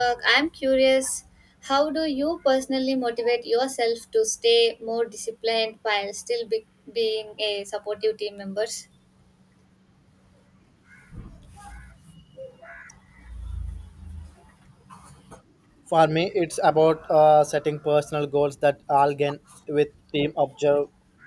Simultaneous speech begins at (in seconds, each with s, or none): none